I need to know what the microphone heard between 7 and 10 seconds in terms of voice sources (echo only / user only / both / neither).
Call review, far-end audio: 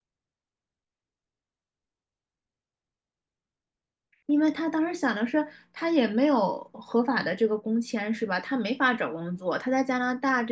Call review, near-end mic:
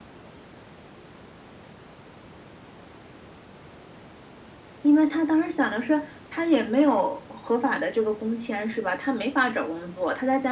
echo only